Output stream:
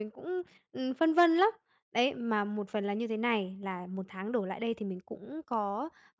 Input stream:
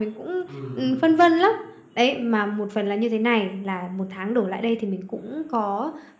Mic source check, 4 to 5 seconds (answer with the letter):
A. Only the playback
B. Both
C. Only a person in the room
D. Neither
A